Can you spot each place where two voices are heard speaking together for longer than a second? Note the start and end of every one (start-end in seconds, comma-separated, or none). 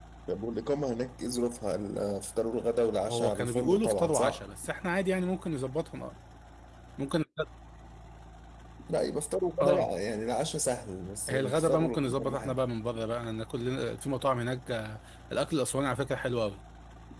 3.1-4.5, 11.3-12.6